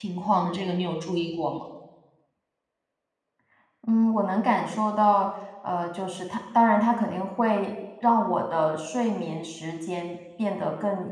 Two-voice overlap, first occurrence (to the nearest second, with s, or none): none